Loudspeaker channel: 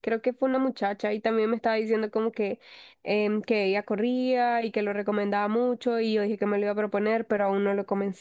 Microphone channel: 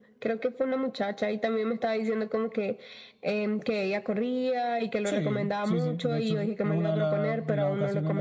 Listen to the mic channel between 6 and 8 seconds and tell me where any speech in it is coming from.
both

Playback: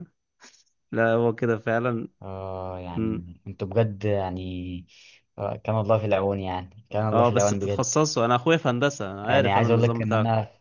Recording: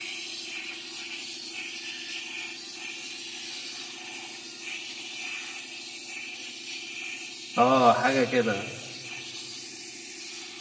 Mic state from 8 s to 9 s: user only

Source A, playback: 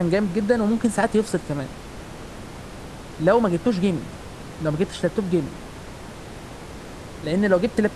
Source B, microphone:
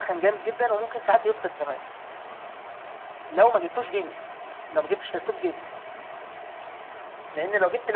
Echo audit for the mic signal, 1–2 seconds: echo only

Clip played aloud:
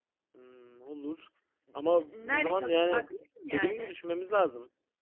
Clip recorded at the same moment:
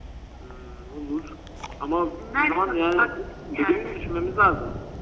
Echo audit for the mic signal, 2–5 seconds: echo only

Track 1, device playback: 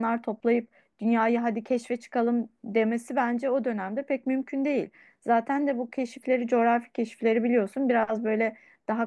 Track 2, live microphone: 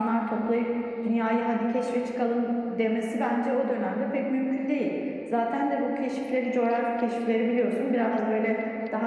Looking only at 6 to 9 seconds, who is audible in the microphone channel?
echo only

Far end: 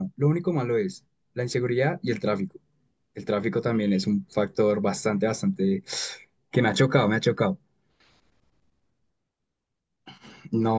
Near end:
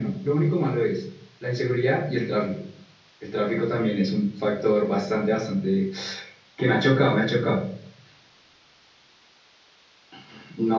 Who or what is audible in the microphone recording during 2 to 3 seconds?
echo only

